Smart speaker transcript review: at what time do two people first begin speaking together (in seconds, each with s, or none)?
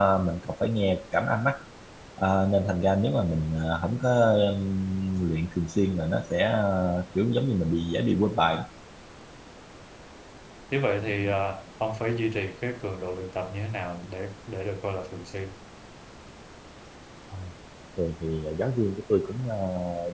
none